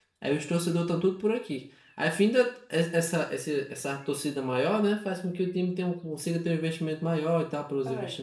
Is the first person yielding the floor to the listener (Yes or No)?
Yes